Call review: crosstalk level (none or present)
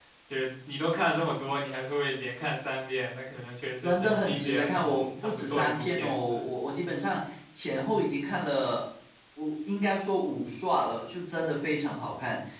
present